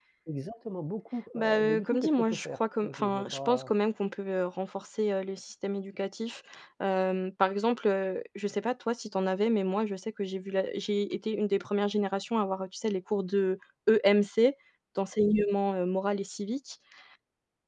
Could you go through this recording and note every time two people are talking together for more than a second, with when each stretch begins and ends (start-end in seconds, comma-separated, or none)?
1.3-3.7